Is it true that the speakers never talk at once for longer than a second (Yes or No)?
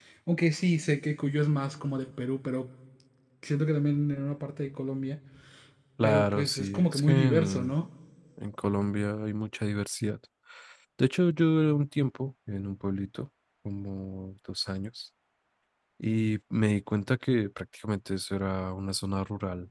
No